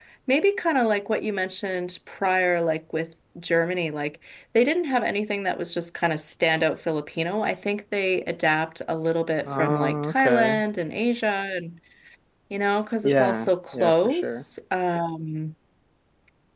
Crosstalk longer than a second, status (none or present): present